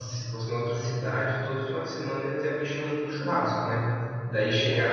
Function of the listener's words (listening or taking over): listening